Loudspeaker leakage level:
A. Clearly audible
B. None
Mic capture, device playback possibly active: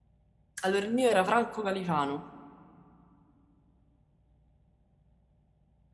B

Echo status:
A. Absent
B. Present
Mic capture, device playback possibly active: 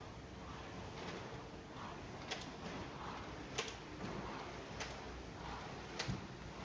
A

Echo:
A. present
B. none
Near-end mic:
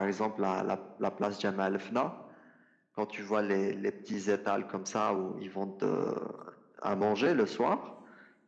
A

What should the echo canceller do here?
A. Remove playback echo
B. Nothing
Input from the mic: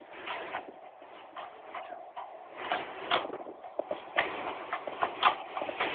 B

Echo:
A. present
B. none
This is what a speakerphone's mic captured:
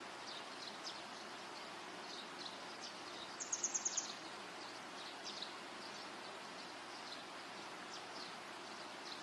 B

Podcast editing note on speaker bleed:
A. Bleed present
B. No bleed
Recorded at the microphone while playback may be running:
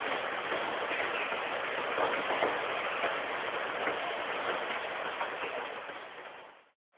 B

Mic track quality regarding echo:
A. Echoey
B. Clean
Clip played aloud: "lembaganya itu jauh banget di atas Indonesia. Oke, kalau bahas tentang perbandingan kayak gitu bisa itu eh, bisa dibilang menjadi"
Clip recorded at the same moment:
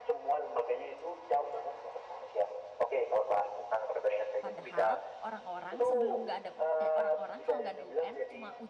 A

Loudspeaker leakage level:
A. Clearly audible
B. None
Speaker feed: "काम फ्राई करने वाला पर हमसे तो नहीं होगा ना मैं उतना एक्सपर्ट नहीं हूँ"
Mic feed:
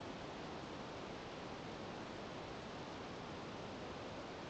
B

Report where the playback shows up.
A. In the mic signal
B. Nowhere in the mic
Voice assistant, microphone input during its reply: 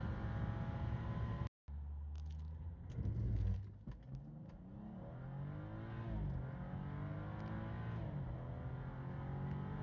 B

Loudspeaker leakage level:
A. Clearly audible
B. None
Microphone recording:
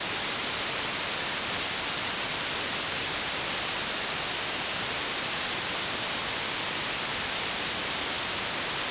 B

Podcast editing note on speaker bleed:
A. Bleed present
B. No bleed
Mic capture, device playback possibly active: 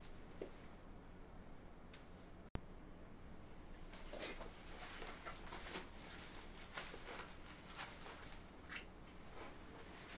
B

